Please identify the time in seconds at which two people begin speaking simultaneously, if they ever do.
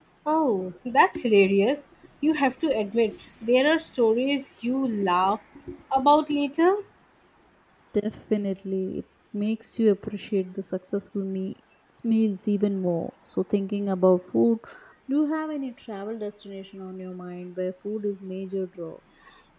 none

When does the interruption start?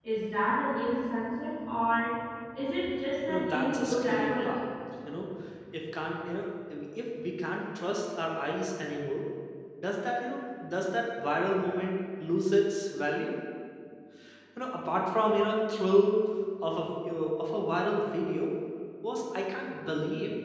3.3 s

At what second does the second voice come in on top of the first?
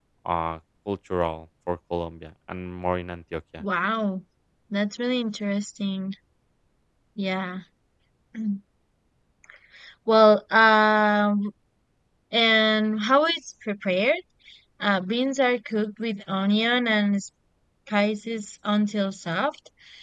none

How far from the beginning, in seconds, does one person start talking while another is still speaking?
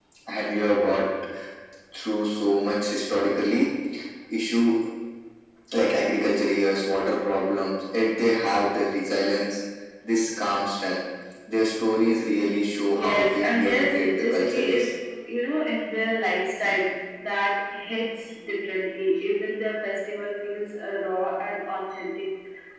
12.9 s

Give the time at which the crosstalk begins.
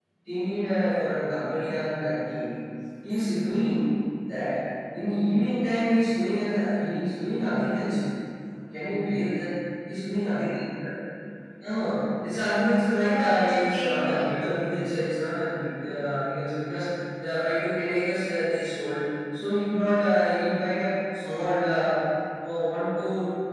13.0 s

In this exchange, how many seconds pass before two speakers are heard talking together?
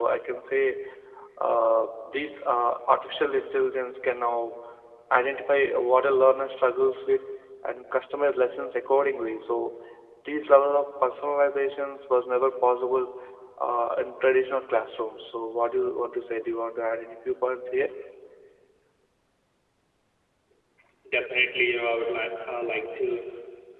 none

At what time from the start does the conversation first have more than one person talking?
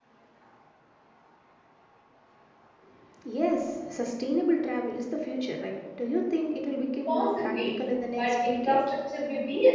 7.1 s

